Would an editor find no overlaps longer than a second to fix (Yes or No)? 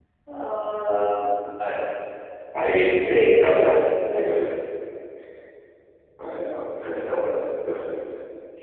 Yes